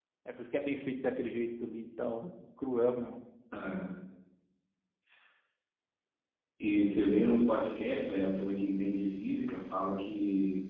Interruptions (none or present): none